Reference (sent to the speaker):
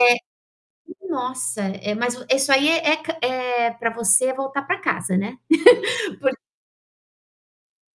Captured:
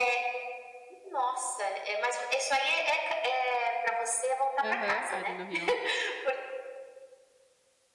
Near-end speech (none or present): present